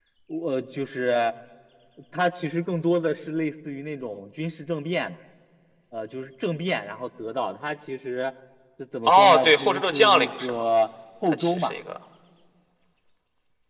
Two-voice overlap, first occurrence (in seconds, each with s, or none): 9.1 s